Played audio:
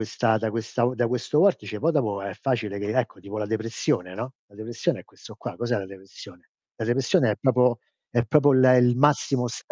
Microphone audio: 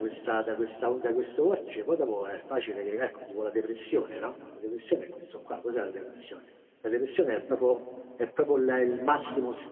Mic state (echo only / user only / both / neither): echo only